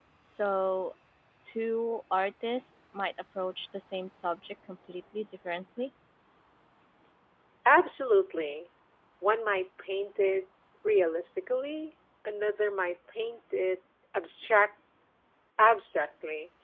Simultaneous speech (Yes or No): No